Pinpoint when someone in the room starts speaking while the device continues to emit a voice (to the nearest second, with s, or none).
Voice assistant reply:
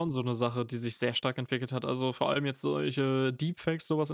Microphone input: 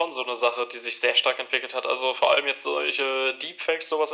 none